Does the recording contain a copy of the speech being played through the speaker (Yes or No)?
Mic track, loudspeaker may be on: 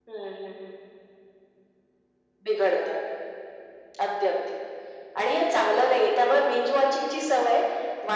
Yes